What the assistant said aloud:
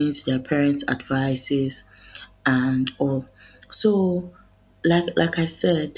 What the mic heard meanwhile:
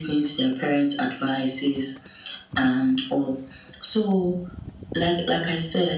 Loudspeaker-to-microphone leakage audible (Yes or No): Yes